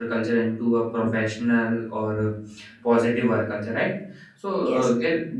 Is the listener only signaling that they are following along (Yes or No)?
Yes